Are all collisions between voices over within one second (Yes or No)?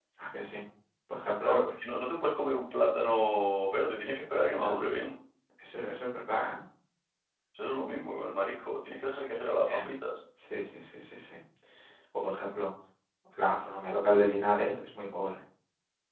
Yes